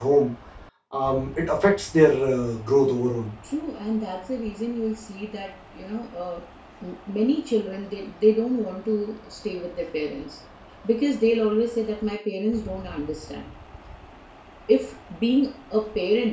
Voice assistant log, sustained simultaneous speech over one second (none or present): none